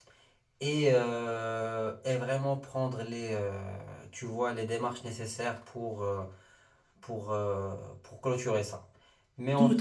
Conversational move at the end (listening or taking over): taking over